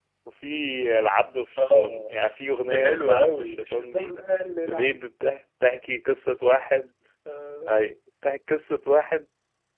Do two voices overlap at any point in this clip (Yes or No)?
Yes